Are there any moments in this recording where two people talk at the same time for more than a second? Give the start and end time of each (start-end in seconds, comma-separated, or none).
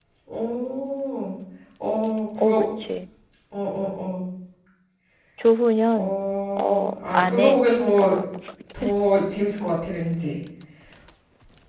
6.6-8.1